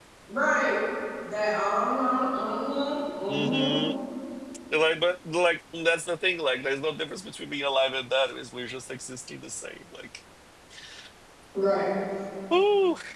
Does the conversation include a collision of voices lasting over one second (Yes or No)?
No